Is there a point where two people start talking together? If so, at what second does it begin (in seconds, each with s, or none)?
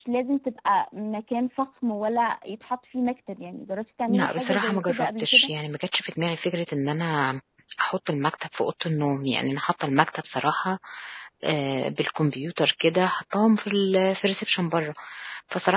4.1 s